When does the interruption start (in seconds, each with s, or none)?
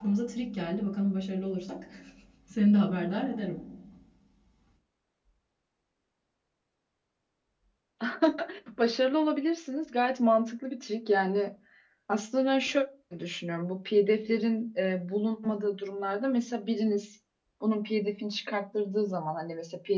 none